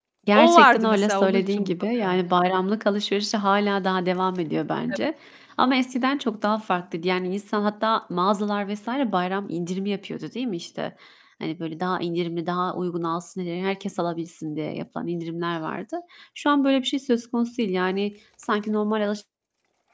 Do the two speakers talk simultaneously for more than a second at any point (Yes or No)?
Yes